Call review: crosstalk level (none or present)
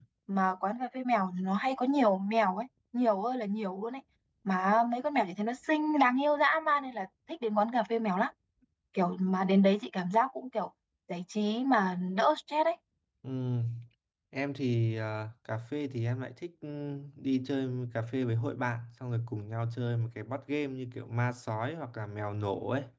none